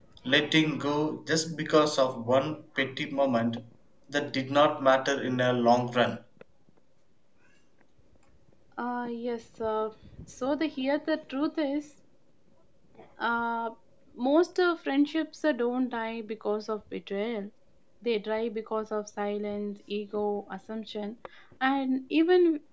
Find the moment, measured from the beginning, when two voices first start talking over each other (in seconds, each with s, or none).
none